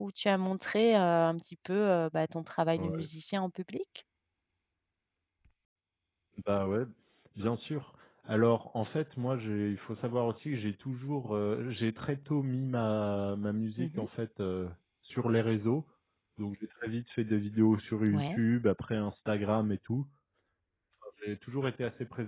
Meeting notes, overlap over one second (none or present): none